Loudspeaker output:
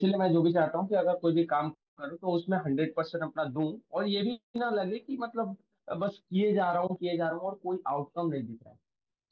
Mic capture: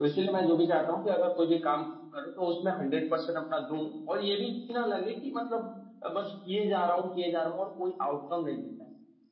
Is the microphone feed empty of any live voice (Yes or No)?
Yes